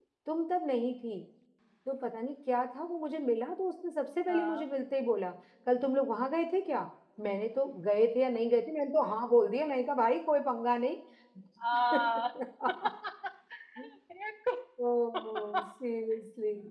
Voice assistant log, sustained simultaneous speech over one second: none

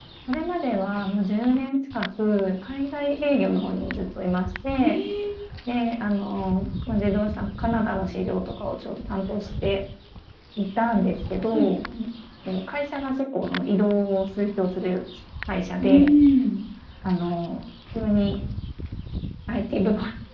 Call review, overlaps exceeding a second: none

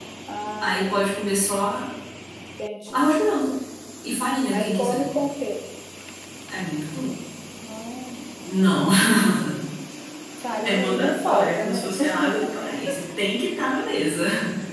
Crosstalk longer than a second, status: present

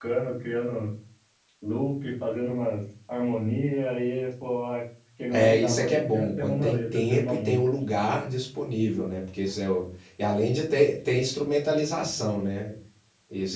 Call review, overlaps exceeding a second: present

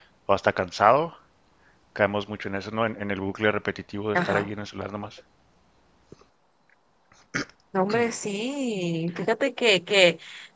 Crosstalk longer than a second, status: none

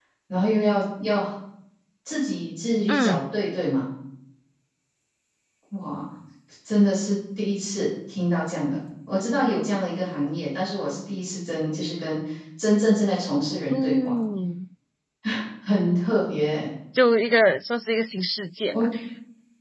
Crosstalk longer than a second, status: none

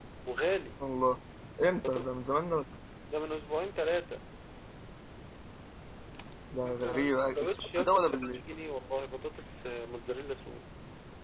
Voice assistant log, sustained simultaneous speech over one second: present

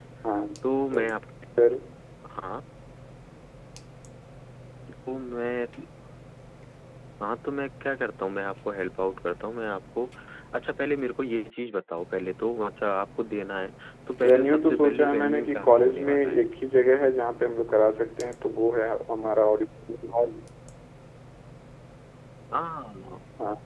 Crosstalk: present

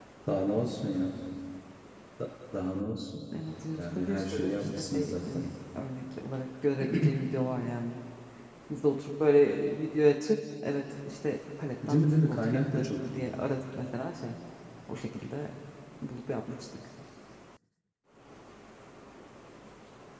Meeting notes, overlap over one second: present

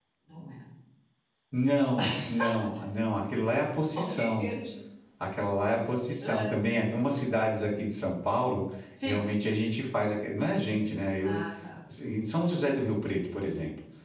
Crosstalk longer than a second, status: none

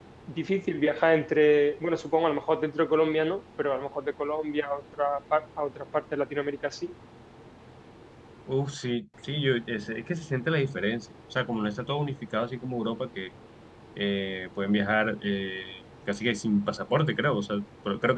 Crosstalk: none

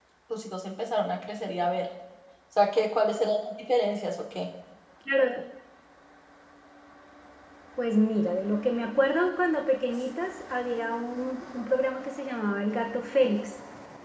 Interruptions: none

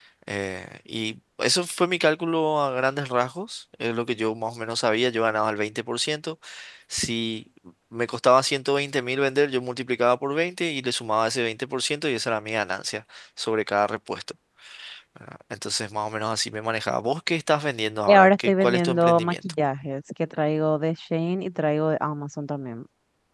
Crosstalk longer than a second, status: present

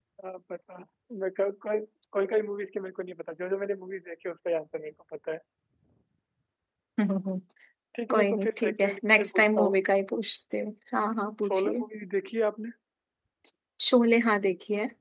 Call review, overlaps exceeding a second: present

